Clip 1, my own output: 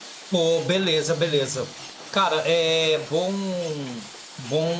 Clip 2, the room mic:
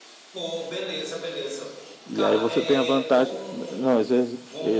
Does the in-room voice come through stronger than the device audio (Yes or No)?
Yes